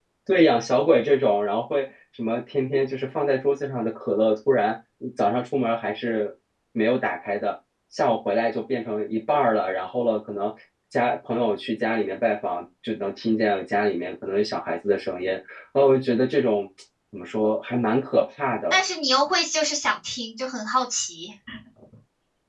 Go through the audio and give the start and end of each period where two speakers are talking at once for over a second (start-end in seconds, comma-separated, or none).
none